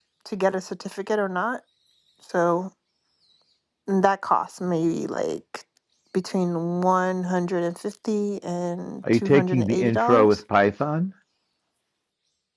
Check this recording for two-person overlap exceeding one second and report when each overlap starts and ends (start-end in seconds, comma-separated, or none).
9.1-10.4